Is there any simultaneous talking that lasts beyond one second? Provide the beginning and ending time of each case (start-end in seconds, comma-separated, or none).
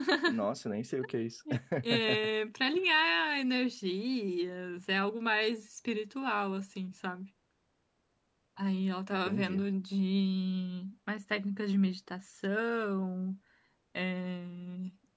none